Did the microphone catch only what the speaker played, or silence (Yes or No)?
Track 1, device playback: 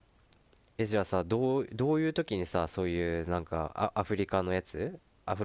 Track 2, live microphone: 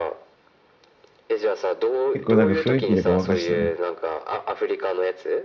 No